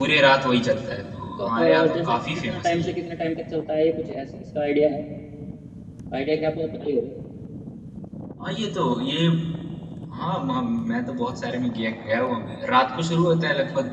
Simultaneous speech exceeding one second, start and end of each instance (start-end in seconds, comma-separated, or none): 1.4-2.9